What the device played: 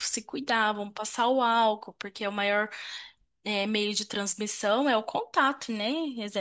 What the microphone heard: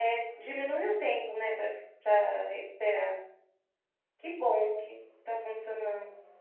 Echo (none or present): none